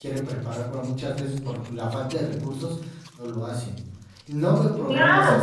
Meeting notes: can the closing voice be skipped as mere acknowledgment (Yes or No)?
No